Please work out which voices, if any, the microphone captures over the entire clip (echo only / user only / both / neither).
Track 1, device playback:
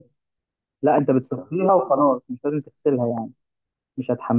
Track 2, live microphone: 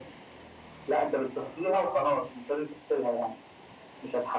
echo only